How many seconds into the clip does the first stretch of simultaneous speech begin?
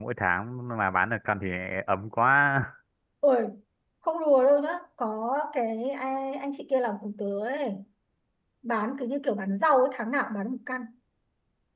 none

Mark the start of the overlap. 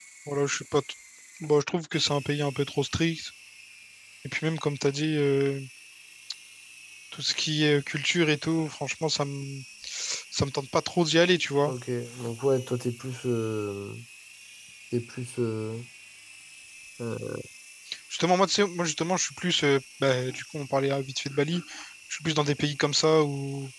none

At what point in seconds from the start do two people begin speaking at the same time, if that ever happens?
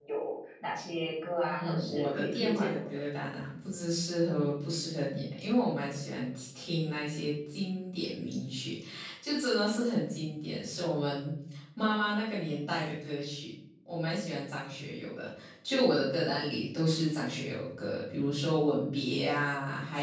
1.4 s

